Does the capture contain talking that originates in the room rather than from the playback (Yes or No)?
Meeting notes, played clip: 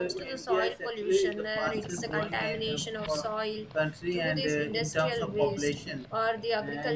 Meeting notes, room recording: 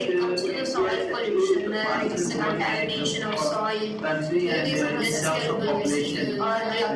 Yes